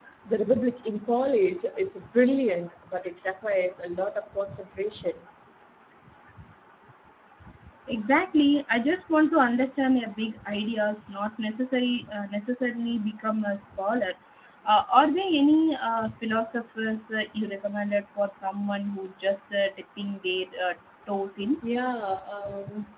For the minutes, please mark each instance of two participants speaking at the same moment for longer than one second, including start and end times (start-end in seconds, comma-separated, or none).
none